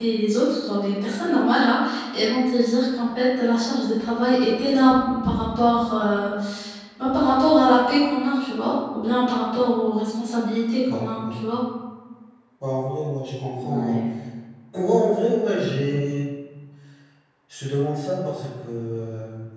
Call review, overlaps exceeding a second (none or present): none